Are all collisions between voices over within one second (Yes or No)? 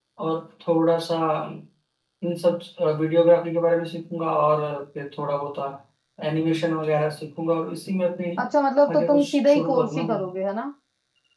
No